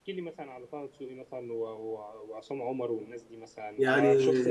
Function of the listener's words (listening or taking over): listening